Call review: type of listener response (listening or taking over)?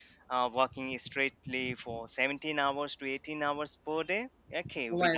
listening